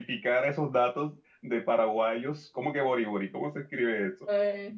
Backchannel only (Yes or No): No